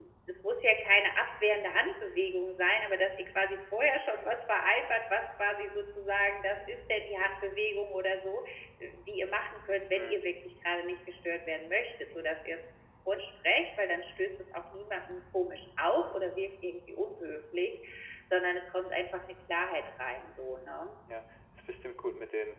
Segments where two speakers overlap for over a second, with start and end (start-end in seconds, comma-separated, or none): none